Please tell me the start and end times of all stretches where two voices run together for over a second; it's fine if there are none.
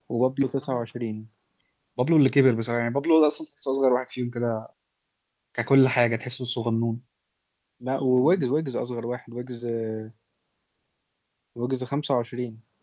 none

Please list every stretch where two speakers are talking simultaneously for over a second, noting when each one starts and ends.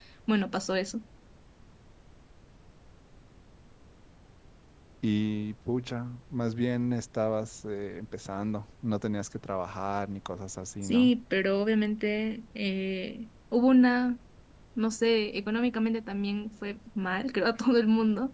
none

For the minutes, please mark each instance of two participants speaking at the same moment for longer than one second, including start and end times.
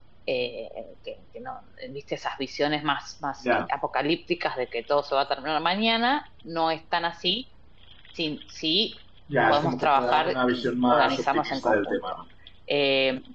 9.5-12.0

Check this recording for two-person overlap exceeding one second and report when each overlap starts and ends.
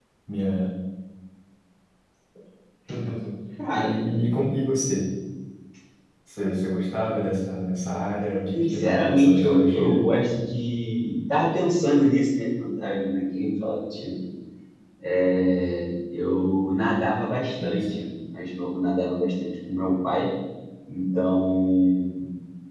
8.5-10.0

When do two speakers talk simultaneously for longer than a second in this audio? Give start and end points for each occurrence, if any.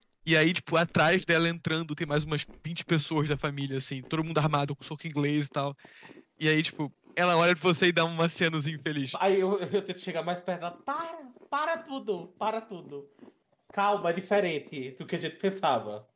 none

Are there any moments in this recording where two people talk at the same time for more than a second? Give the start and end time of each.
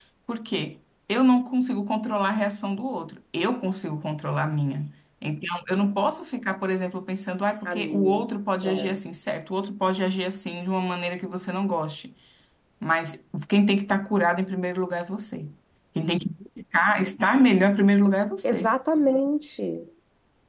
none

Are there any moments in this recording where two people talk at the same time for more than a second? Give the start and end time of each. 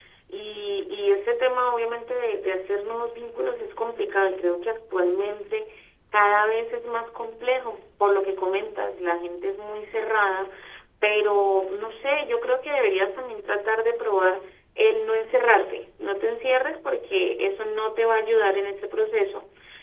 none

